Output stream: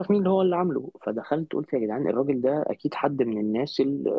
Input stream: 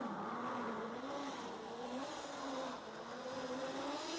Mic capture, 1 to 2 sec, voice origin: neither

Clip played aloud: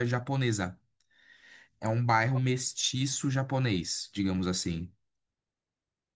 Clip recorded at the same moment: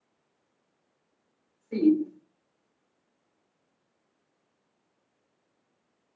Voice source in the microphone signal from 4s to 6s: neither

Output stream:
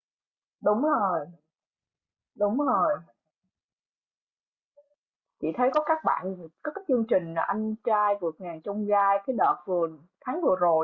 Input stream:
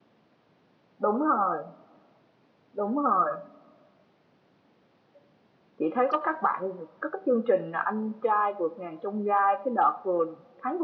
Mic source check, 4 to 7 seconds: echo only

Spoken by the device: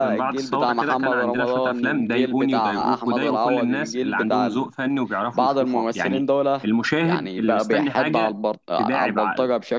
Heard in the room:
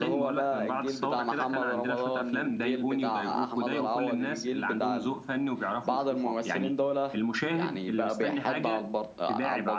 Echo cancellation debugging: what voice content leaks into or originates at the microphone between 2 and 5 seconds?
echo only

